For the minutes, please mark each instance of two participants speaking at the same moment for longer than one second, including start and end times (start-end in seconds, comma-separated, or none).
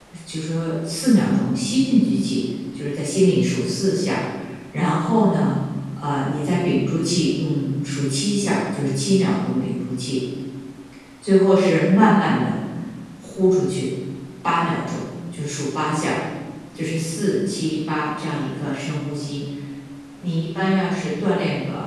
none